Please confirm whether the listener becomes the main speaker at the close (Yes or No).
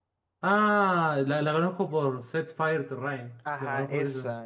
Yes